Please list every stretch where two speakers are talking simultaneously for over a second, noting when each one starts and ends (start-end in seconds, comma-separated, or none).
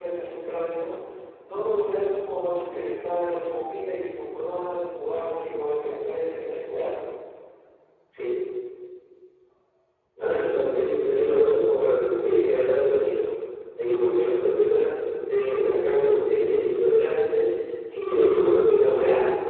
none